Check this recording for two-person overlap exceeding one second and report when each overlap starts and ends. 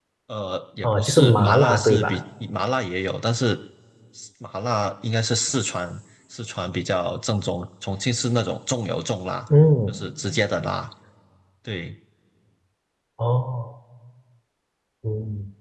0.8-2.2

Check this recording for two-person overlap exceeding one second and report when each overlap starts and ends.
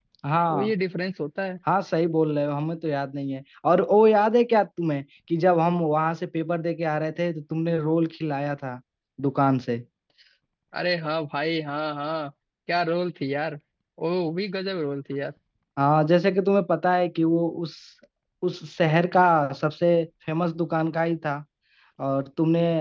none

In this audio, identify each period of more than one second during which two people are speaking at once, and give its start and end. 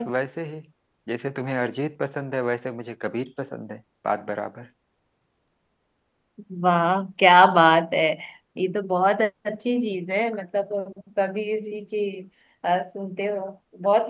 none

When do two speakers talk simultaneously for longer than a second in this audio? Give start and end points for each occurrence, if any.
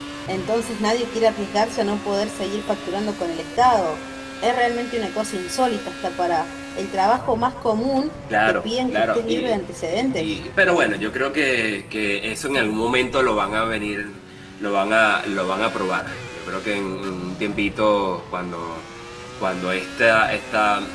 8.5-10.3

